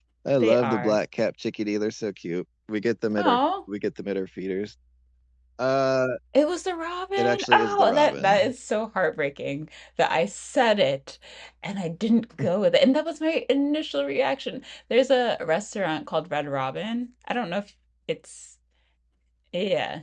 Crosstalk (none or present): present